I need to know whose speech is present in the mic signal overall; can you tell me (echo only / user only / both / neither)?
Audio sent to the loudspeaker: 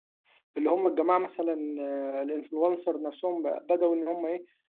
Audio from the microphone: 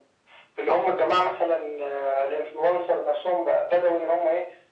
echo only